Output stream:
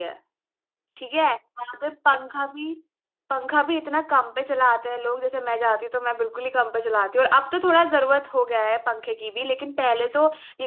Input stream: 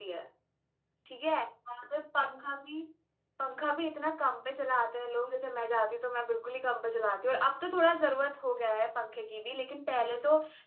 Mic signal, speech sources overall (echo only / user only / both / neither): echo only